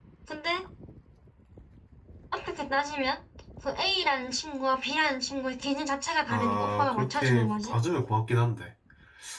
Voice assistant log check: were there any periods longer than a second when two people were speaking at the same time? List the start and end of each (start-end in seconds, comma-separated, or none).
6.3-7.8